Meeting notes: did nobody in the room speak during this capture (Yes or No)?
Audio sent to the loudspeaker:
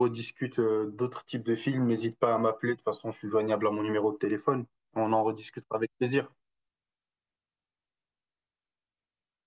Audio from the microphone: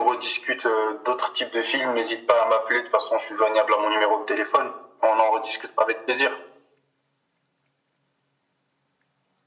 Yes